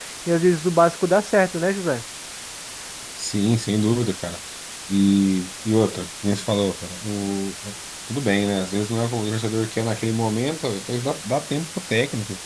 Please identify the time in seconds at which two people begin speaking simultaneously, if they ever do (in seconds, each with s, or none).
none